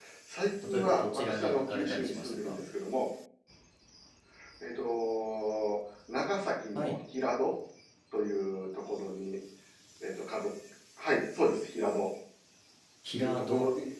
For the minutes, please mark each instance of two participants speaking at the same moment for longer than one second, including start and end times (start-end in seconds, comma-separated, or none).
0.7-2.6